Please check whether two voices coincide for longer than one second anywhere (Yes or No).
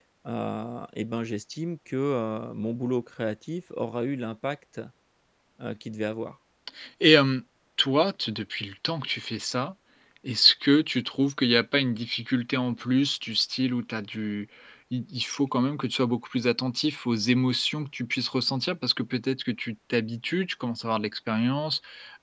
No